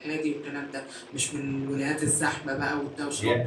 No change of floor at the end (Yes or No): No